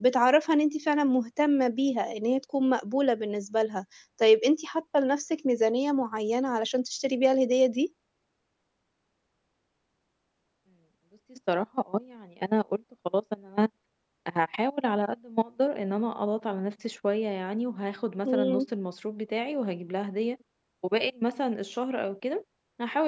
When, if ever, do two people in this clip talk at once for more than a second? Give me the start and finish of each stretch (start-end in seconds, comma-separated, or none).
none